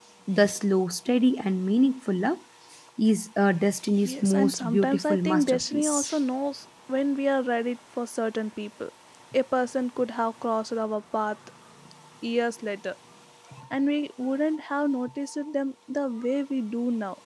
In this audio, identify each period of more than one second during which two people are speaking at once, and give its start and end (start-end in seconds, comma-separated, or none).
4.0-6.2